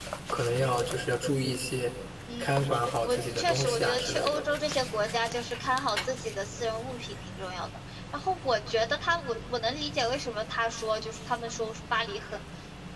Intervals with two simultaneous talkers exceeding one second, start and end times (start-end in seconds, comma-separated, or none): 3.0-4.4